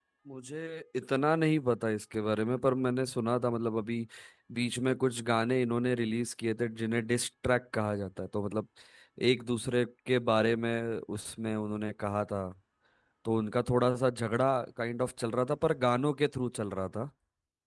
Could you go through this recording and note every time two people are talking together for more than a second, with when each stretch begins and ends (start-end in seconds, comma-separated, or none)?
none